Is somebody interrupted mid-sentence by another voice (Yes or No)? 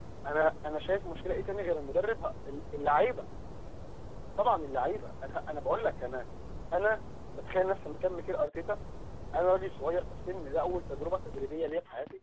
No